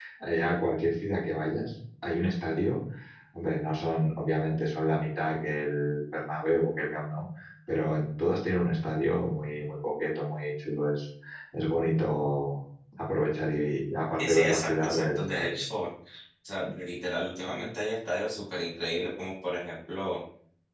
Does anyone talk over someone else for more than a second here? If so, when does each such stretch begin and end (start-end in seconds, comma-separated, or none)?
14.2-15.6